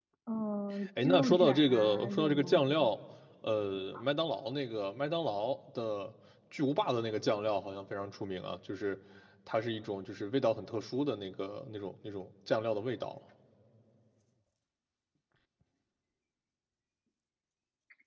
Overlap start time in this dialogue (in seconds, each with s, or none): 1.0 s